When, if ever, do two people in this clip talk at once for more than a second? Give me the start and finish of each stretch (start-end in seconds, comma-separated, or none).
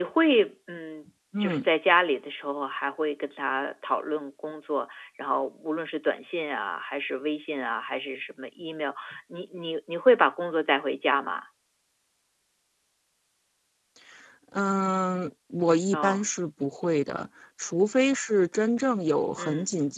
none